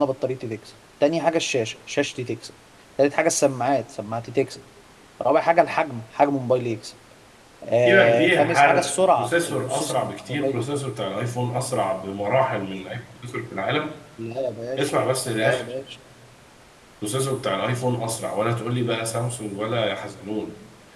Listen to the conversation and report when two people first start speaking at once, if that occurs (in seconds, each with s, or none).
7.9 s